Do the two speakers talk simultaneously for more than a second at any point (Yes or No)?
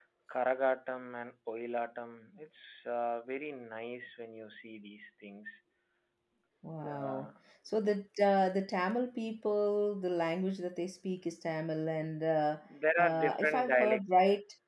Yes